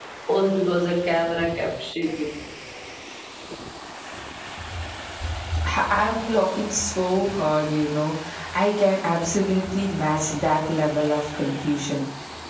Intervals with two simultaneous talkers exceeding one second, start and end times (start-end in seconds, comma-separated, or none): none